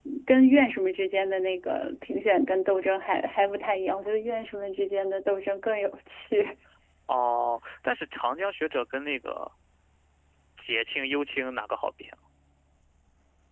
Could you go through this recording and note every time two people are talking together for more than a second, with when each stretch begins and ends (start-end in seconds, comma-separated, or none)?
none